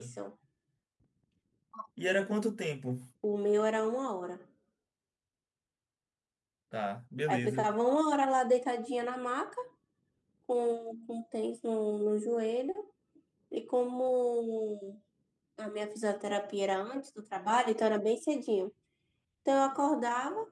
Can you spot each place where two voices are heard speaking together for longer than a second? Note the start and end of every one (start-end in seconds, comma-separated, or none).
none